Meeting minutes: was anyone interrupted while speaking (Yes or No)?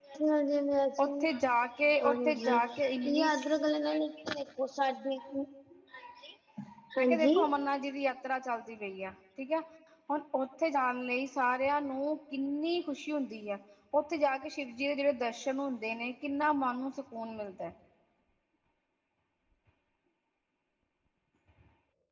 Yes